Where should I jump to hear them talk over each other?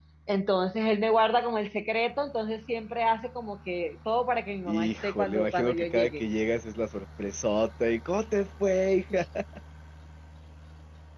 4.7 s

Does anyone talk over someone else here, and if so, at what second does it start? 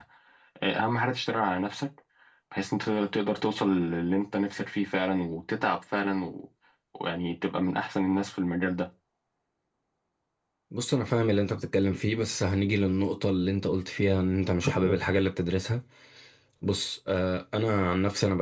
none

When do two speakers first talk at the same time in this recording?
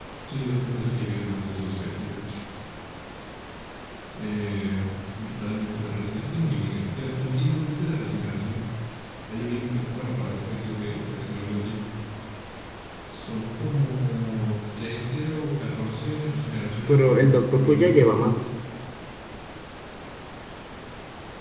16.9 s

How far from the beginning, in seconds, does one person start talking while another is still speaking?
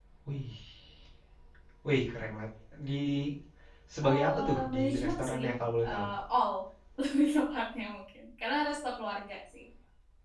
4.0 s

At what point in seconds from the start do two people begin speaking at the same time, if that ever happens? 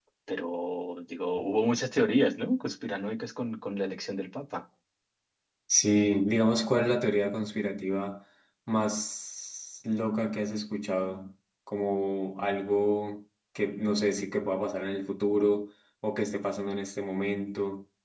none

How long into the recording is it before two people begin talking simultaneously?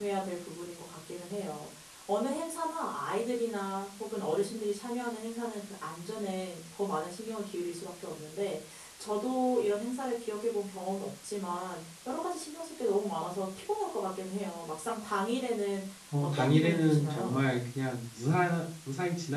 16.2 s

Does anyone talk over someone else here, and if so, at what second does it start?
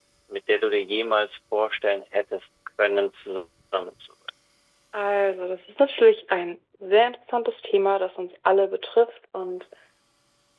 none

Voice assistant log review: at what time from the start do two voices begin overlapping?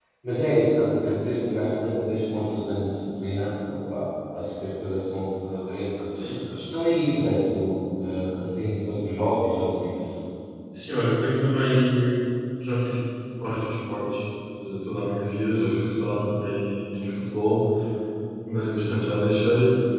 none

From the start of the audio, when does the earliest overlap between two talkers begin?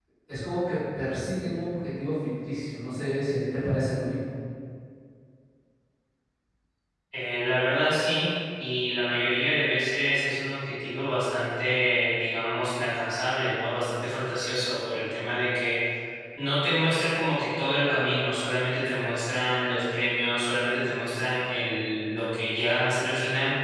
none

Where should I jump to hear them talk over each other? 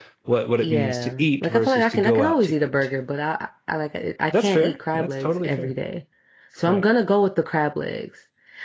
0.6 s

